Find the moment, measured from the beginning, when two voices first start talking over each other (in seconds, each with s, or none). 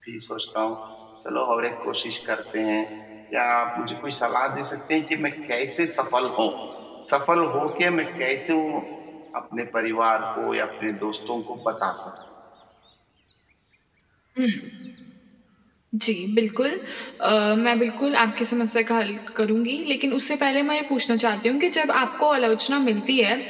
none